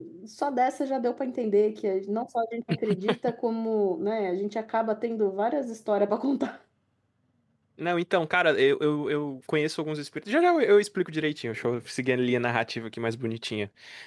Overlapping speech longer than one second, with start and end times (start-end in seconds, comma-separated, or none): none